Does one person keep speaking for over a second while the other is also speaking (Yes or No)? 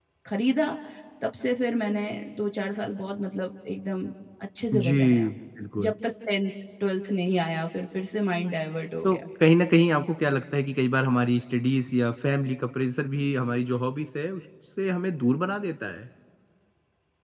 No